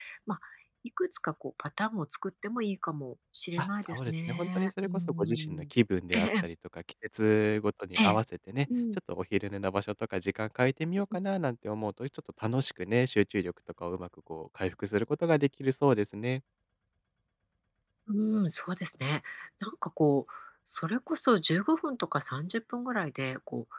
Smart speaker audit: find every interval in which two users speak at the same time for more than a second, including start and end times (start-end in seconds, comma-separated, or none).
3.6-5.6